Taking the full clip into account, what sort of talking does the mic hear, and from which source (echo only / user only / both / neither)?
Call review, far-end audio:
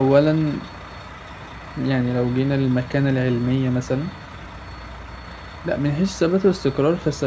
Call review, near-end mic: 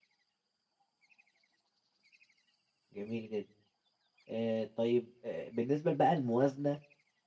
user only